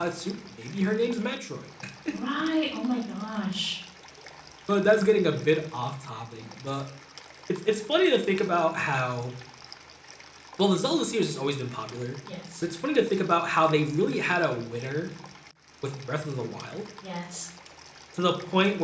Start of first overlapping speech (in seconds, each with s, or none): none